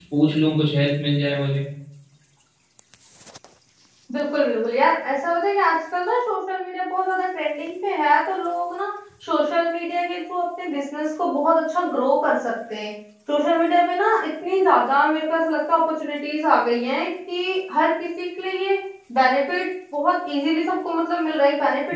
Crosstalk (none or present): none